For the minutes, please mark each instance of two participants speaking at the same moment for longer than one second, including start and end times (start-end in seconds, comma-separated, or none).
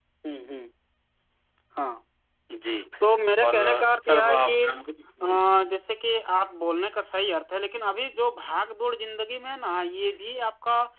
3.4-4.7